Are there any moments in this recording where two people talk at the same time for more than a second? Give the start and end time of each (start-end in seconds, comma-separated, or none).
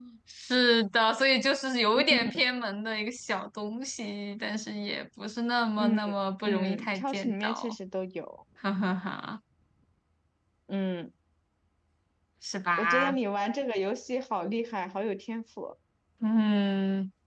6.4-7.8